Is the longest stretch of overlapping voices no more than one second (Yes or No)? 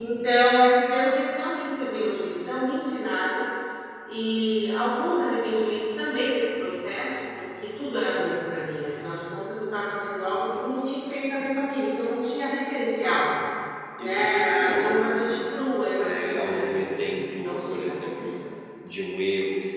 No